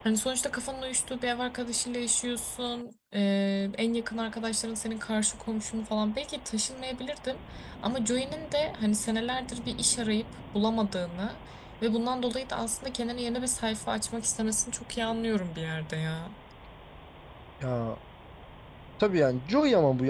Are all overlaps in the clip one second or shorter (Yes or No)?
Yes